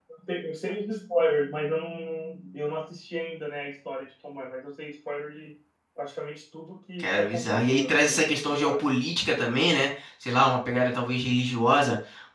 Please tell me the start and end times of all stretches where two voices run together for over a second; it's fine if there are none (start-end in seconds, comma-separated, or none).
7.0-8.8